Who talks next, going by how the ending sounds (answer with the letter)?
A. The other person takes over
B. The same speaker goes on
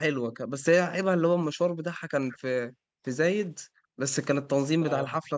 B